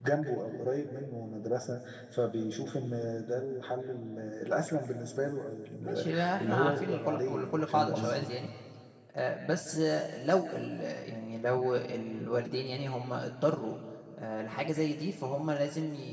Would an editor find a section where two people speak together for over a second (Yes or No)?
Yes